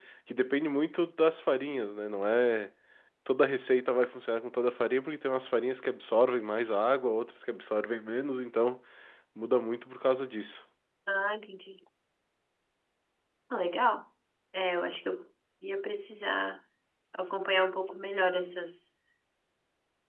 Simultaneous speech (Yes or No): No